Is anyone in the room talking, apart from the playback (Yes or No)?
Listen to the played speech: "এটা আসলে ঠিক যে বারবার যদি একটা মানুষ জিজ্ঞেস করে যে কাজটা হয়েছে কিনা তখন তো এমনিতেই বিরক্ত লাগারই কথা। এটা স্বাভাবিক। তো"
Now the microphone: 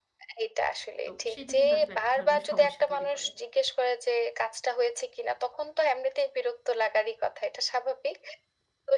Yes